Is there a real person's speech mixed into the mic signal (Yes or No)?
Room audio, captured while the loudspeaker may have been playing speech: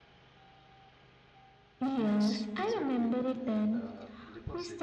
Yes